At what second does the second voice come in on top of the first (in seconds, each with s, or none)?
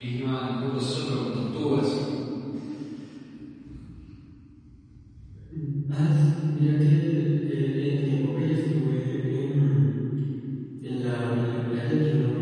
none